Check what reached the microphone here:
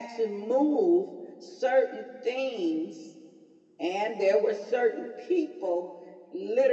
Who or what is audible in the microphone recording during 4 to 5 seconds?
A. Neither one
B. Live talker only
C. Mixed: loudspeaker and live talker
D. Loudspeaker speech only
D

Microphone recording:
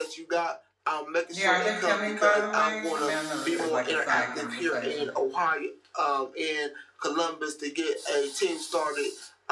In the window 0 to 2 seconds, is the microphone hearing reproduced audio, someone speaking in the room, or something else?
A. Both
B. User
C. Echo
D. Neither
A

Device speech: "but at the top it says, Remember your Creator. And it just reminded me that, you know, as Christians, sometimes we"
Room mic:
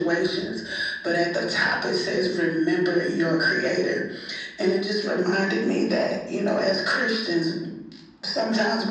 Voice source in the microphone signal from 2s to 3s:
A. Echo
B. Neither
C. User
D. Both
A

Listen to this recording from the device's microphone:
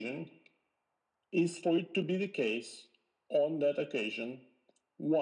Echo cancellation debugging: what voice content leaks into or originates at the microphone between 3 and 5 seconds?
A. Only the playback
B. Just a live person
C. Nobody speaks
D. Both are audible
A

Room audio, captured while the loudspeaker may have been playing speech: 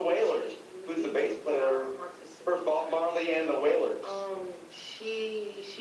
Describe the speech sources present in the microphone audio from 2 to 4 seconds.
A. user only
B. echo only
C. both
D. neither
B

